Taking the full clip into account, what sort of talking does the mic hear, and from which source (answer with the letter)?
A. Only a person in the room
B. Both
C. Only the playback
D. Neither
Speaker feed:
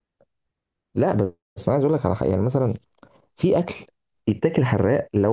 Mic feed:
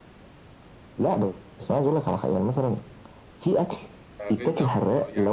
B